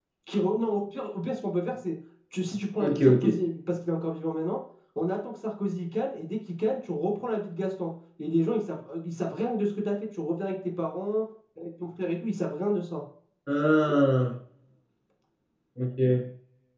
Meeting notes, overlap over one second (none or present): none